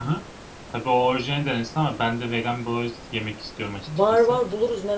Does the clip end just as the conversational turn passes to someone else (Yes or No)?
Yes